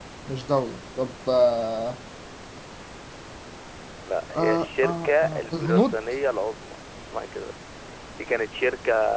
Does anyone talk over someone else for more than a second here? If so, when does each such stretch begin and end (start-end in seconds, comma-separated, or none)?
4.3-6.0